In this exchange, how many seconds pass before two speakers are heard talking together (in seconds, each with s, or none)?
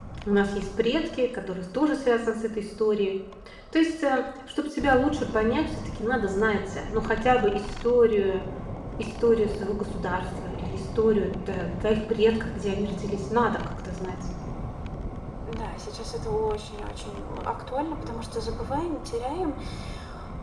none